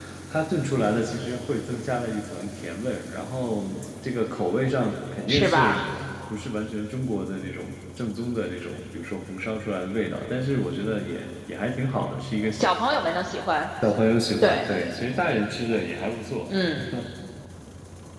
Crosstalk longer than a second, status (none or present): none